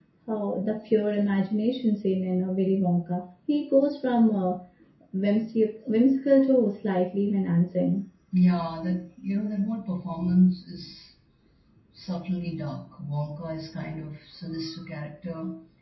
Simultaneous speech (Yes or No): No